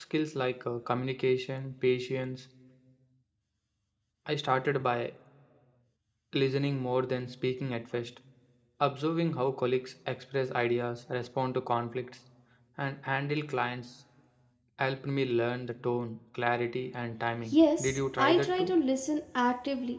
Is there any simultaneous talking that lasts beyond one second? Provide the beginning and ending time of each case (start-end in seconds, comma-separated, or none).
17.5-18.7